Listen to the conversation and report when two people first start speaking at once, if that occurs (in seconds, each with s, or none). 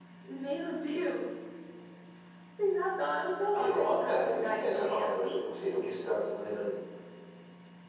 3.5 s